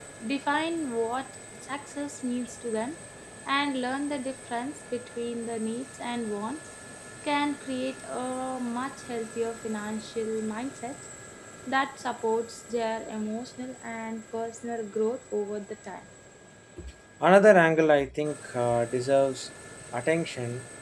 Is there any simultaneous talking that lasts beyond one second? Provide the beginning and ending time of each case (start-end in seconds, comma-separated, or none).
none